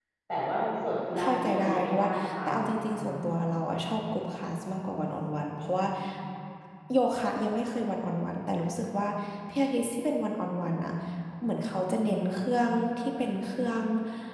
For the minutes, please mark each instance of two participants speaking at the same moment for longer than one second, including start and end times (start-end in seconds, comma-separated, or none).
1.2-3.1